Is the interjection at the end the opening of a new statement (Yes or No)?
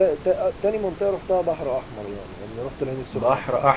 Yes